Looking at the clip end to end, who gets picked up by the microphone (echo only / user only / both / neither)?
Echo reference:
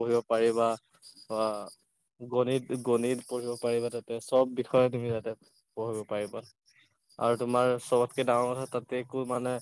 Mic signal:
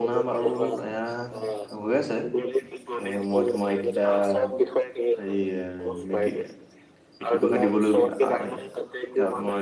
both